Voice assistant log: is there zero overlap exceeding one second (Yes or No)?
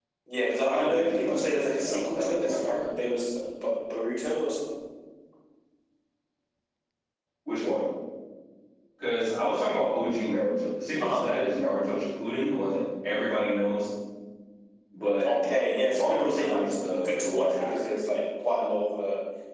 No